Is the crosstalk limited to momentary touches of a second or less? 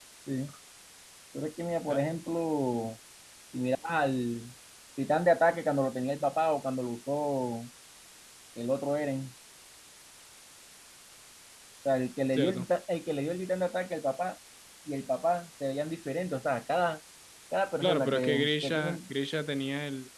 No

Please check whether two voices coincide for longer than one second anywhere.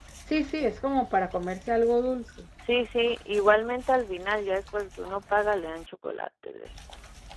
No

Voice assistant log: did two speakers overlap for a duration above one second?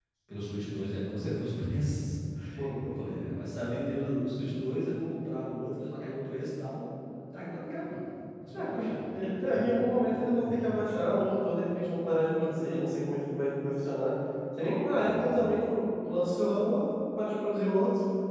No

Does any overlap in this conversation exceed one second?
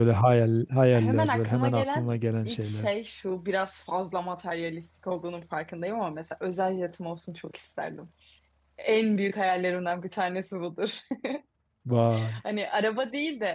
Yes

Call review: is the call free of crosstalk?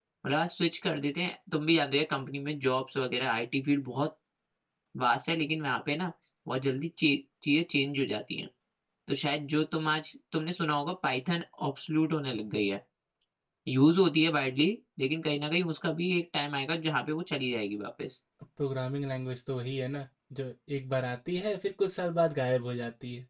Yes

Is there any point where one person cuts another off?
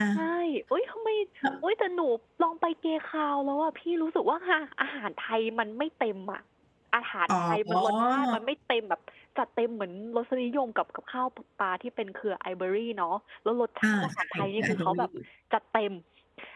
Yes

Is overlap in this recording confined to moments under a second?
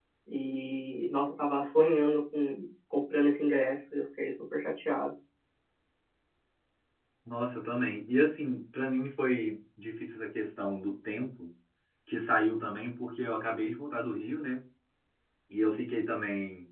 Yes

